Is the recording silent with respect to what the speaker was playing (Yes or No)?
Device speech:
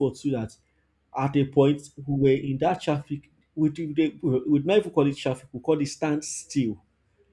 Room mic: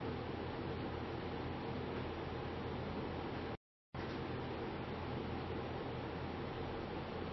Yes